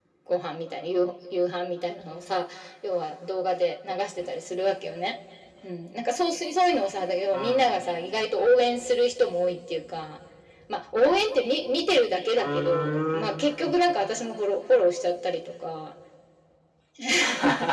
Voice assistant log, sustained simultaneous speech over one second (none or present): present